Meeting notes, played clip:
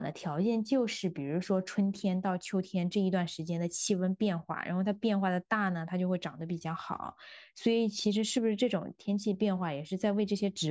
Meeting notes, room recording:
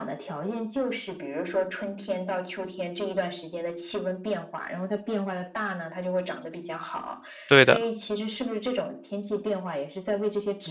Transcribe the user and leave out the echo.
对的。

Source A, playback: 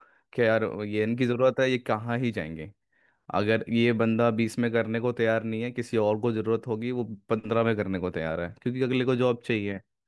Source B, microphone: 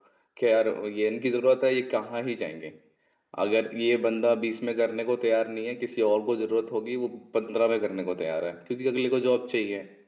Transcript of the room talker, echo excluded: none

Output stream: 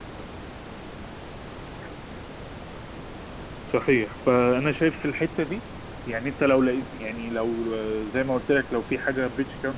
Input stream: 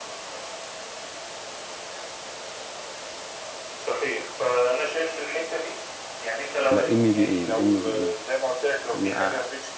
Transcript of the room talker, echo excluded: لا ام بي اي الام بي اي اه

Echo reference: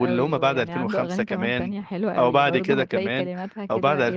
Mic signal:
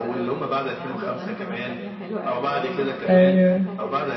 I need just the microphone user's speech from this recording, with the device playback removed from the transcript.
أيوة

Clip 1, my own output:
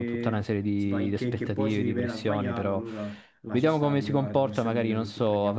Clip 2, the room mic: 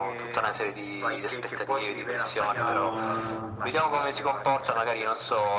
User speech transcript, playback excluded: Ma

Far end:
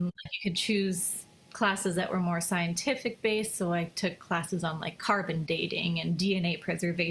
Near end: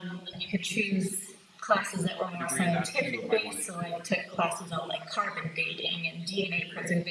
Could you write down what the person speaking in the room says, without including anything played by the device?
a degree in that too if i'd wanted to

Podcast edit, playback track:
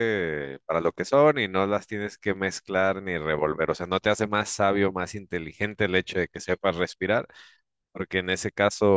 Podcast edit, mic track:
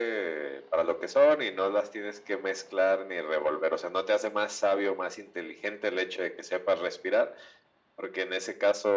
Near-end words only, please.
none

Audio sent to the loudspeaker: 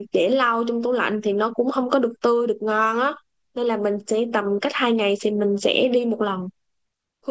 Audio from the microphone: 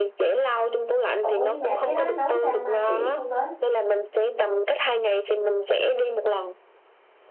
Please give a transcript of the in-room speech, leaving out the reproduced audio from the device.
Ủa nhưng mà cái đó nấu sao mai chỉ không với?

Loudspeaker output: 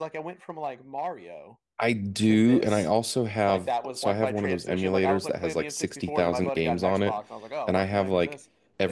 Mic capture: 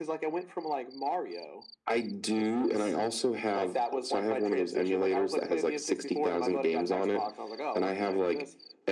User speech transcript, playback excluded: none

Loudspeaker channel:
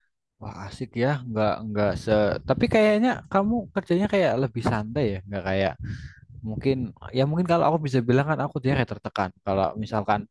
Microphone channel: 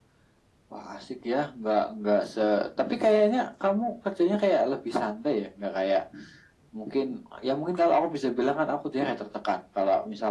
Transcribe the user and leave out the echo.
none

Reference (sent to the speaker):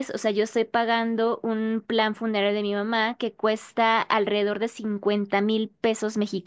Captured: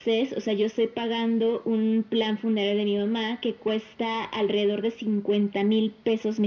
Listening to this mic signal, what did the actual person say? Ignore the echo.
none

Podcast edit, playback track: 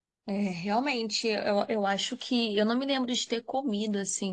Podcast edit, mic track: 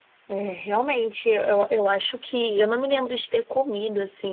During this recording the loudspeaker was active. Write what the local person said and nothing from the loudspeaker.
none

